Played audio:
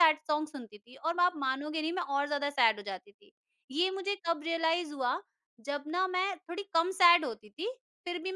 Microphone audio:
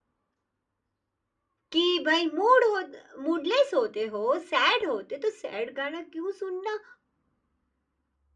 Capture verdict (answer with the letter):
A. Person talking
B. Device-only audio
A